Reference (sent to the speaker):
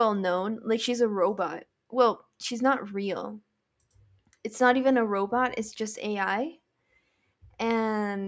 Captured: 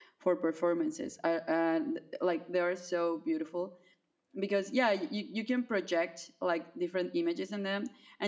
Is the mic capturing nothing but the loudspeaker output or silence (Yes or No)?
No